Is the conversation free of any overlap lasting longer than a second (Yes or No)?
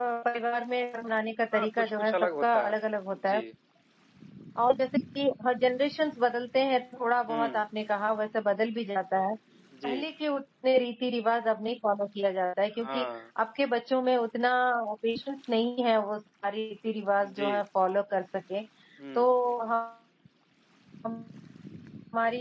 No